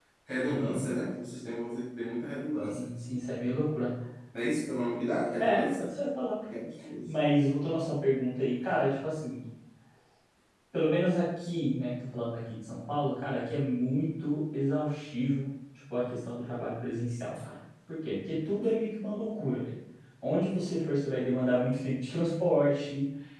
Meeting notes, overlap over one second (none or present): none